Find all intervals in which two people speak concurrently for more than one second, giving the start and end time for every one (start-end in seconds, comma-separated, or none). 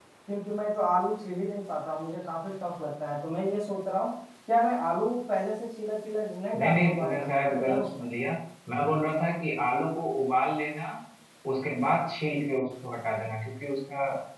6.6-8.1